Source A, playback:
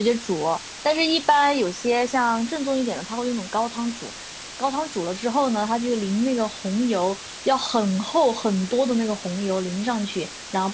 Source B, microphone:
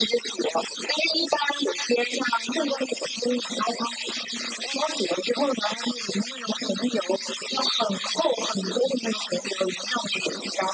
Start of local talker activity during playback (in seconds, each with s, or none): none